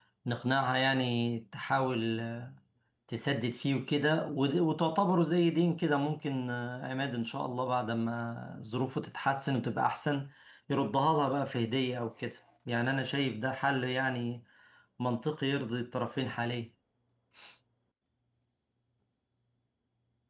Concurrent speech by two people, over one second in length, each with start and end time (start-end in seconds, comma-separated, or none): none